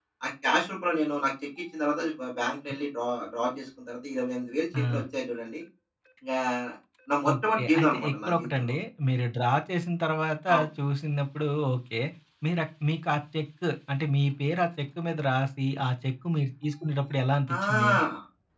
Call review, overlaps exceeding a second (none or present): present